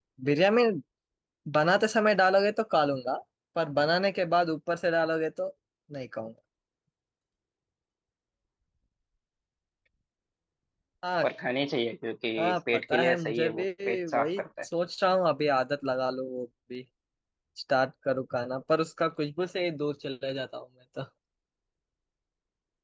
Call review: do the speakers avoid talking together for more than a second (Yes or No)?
No